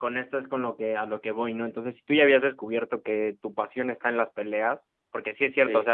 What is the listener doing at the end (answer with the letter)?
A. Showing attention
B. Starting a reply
A